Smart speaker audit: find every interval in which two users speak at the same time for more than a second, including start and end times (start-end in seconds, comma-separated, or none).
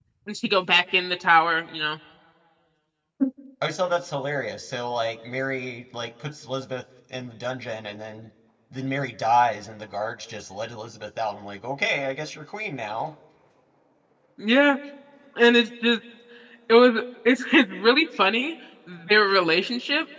none